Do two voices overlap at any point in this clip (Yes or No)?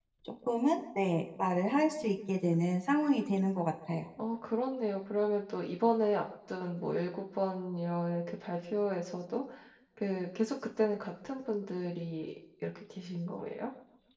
No